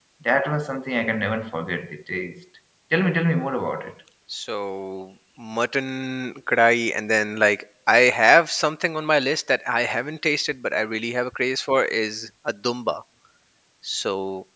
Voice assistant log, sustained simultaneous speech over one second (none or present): none